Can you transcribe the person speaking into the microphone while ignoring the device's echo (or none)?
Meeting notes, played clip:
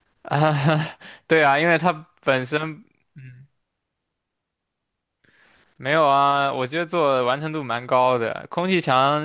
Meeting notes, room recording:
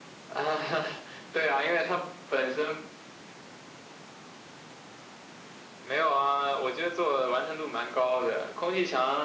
none